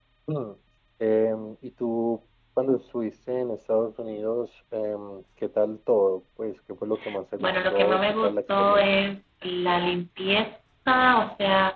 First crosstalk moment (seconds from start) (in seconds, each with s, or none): 7.4 s